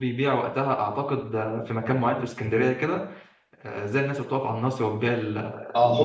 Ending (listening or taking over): taking over